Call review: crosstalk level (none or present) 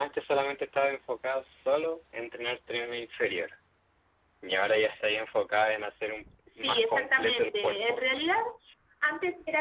present